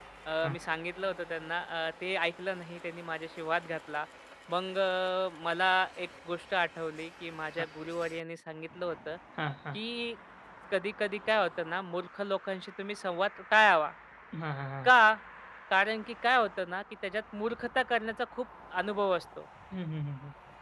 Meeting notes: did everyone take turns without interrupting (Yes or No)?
Yes